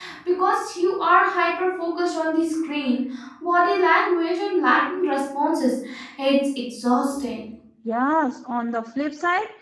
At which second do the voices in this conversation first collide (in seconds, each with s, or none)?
none